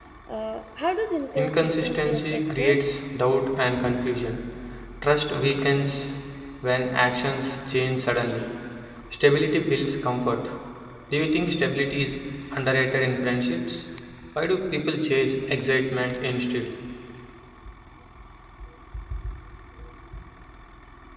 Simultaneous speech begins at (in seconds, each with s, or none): 1.4 s